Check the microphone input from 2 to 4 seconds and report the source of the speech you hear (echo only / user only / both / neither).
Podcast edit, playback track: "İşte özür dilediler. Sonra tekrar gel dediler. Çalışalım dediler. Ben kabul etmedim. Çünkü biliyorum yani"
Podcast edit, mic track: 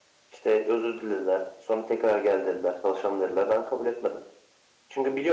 echo only